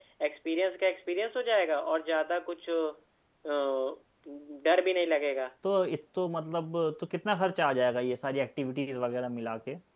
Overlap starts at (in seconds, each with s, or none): none